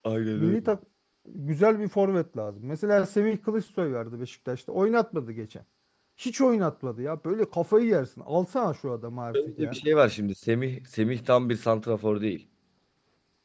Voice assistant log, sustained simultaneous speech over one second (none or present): none